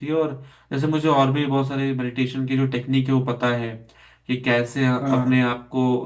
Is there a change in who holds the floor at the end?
No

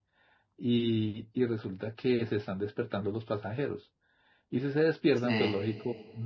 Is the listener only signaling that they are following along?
Yes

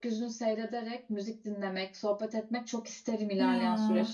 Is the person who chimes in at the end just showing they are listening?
No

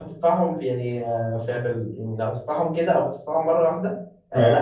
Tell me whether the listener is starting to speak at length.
No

